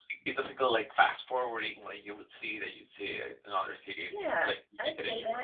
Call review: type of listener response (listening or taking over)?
taking over